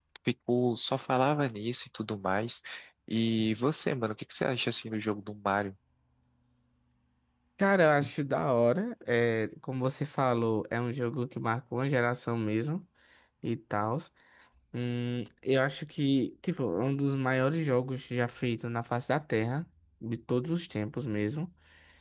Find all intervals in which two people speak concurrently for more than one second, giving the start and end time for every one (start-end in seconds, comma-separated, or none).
none